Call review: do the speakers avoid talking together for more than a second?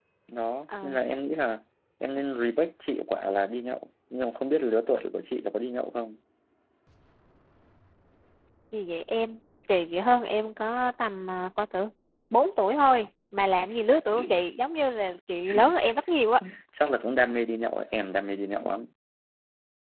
Yes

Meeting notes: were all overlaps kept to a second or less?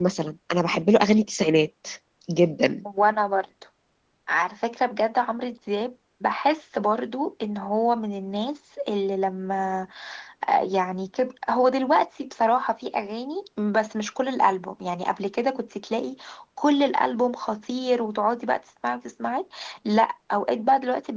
Yes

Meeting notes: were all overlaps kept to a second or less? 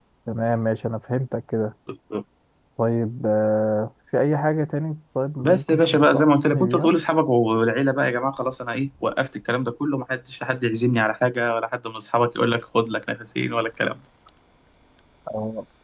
No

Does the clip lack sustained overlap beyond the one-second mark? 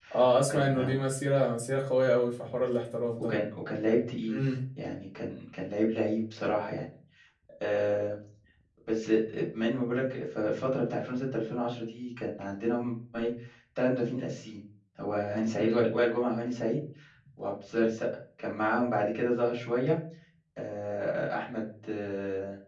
Yes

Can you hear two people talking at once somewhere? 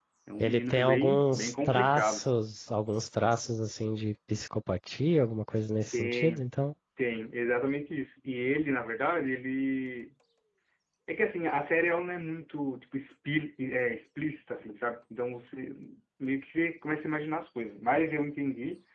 Yes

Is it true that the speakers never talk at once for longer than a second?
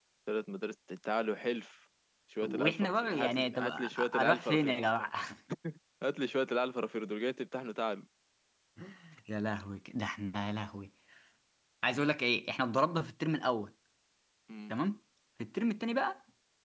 No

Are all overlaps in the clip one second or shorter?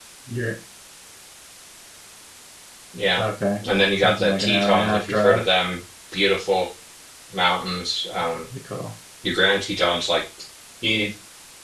No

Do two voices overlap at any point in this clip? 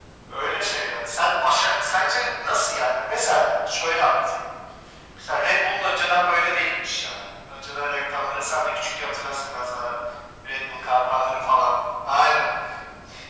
No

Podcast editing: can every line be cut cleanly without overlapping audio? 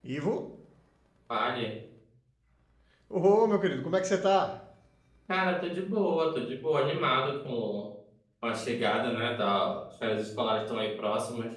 Yes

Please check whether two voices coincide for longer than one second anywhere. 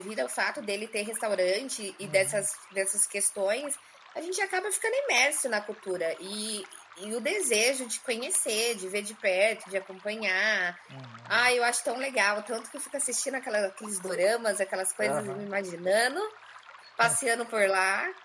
No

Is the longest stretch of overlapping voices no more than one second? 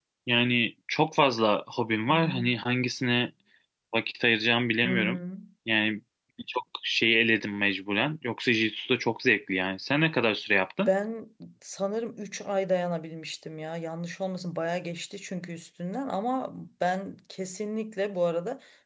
Yes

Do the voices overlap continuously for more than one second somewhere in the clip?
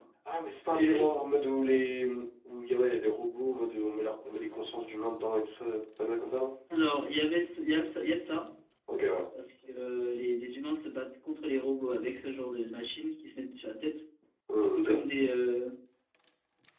No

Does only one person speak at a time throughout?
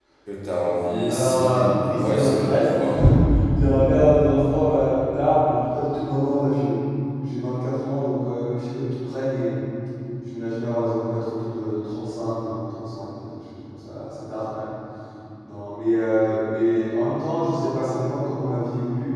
No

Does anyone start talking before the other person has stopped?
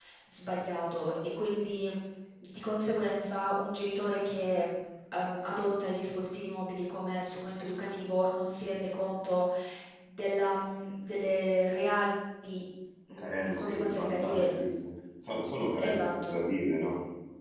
Yes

